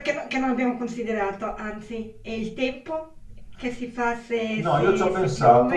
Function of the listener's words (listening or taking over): taking over